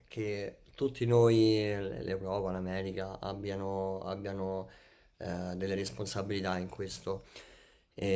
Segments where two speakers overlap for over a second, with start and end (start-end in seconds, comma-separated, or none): none